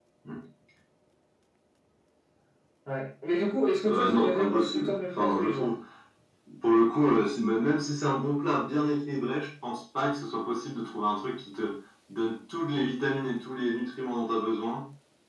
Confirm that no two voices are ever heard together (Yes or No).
No